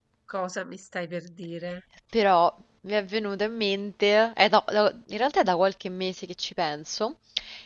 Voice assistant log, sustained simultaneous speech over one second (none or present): none